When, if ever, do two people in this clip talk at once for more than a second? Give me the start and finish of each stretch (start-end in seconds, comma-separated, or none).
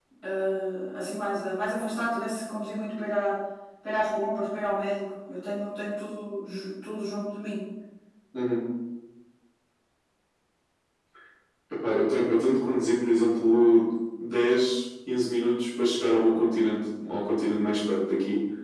none